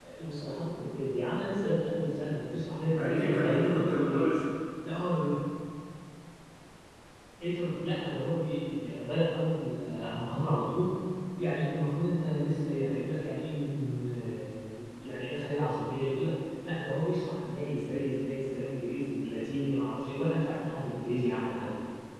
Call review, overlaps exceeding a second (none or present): present